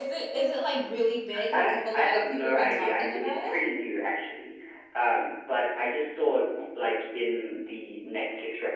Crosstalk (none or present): present